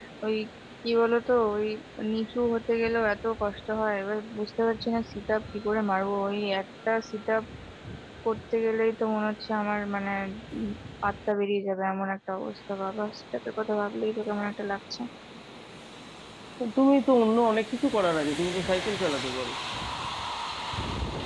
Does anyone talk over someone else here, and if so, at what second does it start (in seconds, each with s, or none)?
none